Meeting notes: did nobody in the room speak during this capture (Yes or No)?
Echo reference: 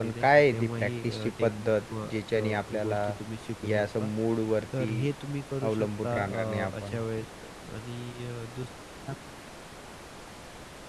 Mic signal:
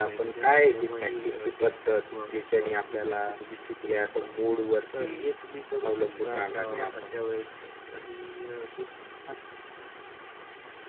Yes